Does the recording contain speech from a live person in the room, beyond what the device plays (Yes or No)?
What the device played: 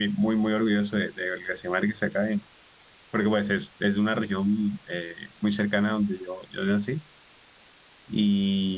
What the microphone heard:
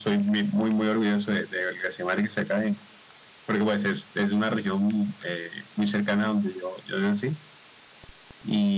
No